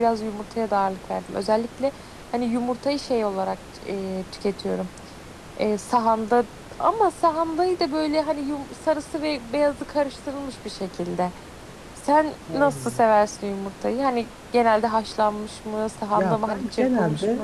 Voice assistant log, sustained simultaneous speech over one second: present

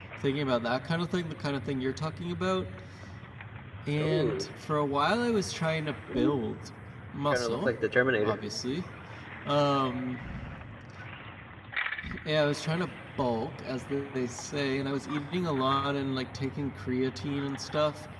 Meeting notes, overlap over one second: none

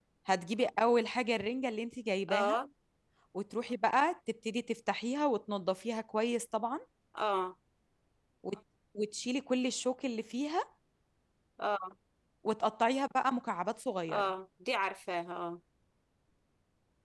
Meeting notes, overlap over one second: none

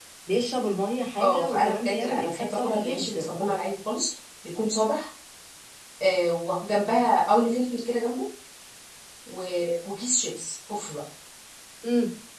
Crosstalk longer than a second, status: present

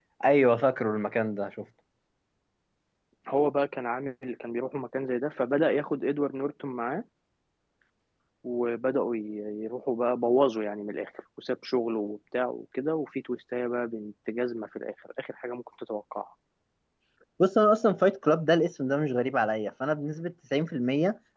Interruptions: none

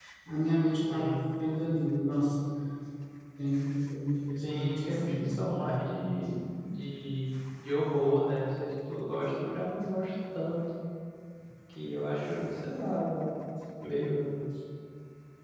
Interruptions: present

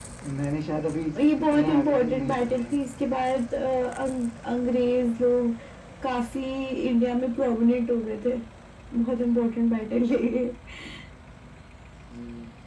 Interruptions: present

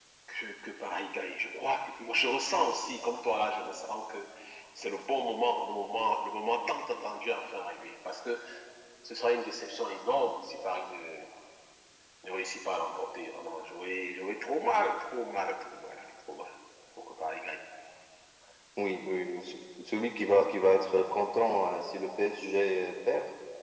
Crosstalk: none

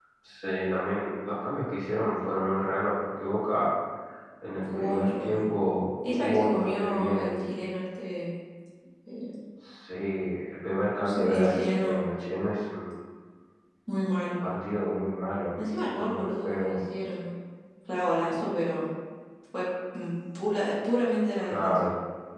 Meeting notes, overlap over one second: present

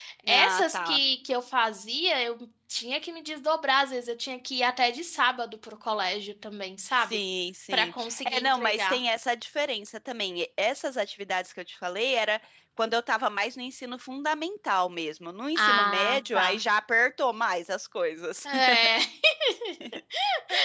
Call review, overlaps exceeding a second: present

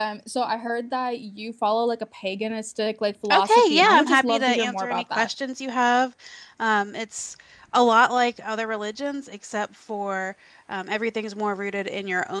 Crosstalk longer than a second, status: present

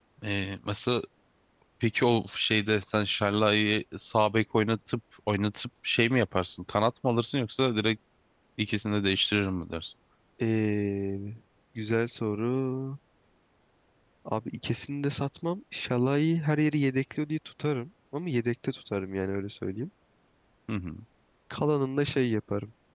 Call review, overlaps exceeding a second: none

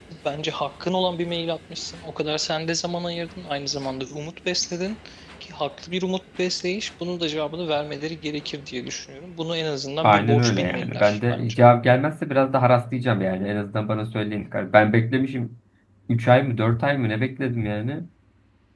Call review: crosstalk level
present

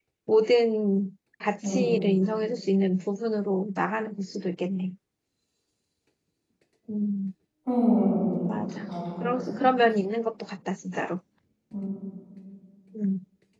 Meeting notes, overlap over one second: none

